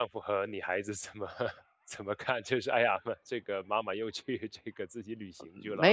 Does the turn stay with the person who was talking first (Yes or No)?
No